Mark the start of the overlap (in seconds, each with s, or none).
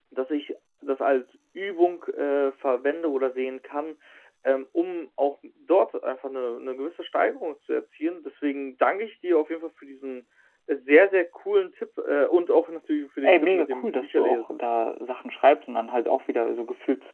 13.2 s